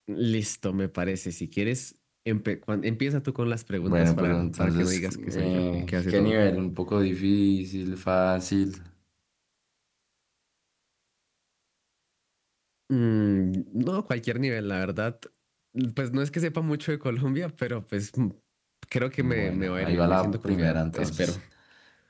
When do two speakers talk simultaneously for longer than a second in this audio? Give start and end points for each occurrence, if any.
3.8-6.4, 19.2-21.3

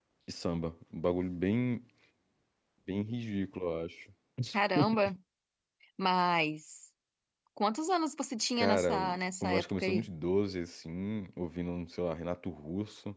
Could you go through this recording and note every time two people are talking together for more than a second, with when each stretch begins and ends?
8.6-10.1

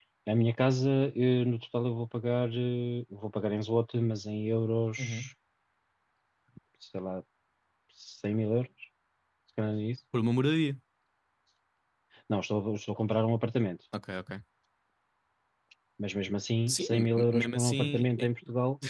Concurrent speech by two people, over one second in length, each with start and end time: 16.7-18.3

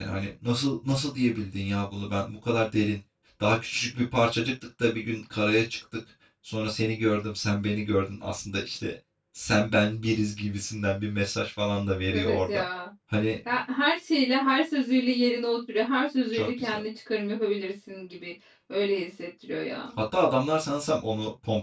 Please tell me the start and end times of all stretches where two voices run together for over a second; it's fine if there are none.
none

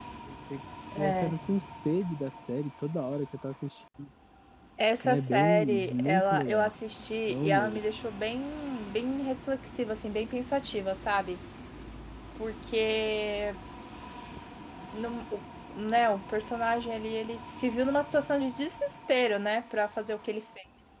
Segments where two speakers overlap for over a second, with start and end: 5.0-6.7

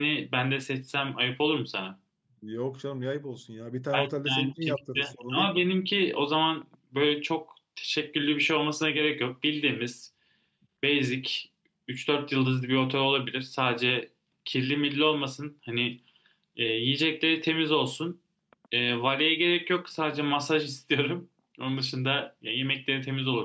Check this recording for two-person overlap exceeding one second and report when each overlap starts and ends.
3.9-5.7

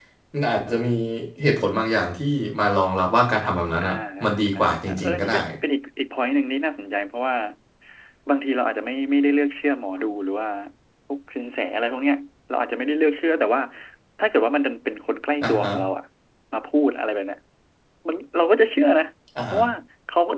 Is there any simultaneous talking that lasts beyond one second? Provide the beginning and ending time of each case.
3.8-5.3

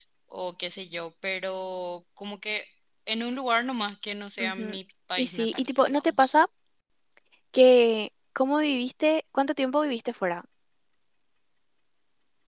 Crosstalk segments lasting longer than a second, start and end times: 5.2-6.4

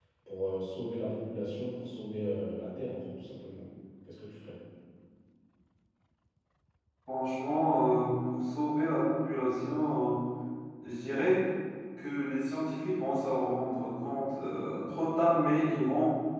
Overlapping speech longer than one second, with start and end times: none

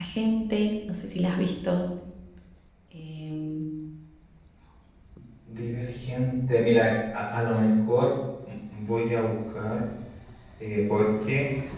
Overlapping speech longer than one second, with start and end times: none

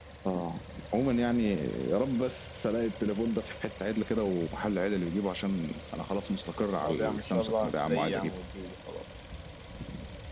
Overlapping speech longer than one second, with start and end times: 6.8-8.4

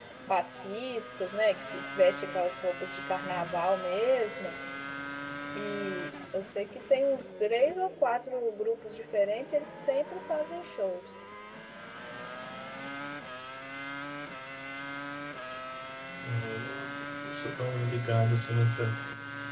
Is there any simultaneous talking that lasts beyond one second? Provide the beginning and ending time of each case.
none

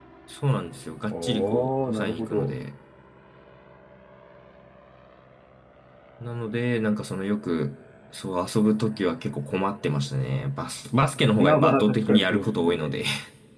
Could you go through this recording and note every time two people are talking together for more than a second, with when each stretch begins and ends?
1.1-2.6, 11.4-13.0

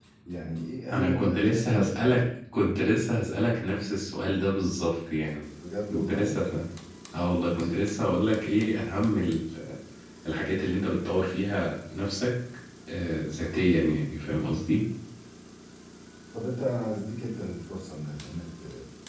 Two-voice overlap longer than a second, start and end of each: 0.9-2.2

